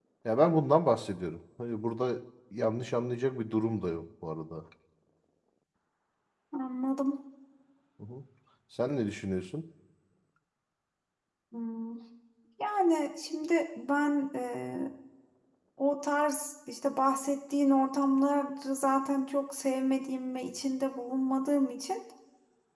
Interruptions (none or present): none